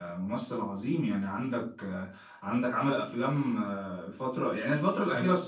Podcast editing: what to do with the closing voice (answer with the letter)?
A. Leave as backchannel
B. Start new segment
B